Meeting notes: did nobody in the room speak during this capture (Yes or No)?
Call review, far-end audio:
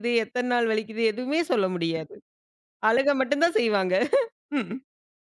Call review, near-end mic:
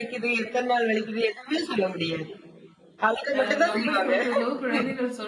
No